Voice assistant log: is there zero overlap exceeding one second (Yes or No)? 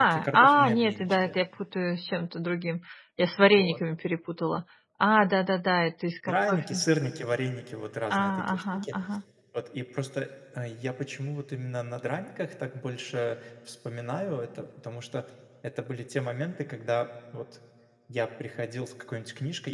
No